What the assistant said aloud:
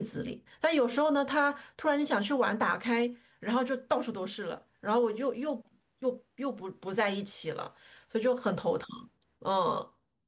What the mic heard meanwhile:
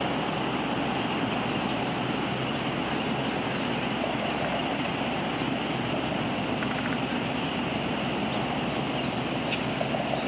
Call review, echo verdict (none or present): none